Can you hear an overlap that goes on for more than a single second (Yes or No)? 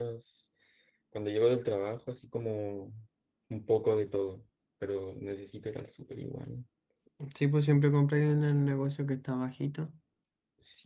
No